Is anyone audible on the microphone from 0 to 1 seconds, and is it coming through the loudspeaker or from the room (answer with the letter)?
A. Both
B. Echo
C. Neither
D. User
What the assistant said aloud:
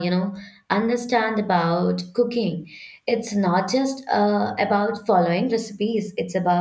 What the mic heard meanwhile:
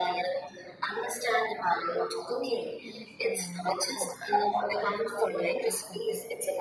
B